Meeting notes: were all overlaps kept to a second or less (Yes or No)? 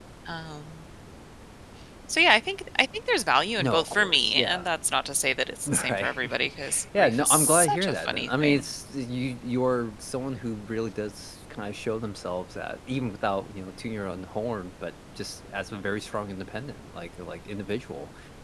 No